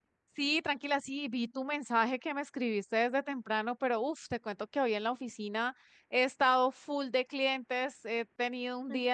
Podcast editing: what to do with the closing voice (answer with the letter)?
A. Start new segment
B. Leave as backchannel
B